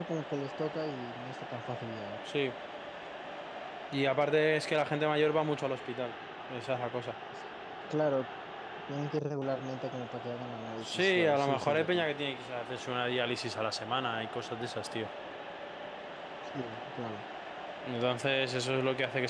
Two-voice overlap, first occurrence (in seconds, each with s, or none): 10.8 s